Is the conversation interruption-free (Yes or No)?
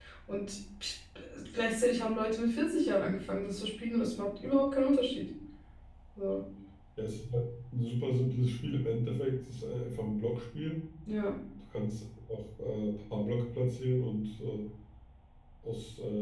Yes